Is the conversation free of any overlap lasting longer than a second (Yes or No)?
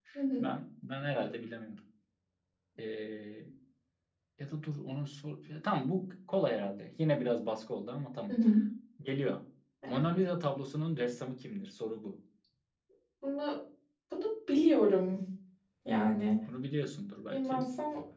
Yes